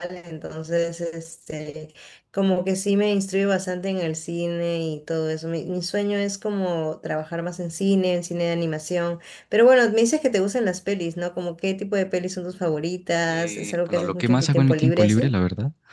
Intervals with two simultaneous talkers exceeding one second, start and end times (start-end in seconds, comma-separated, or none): 13.3-15.3